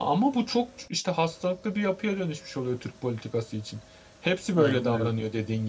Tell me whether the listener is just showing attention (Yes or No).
Yes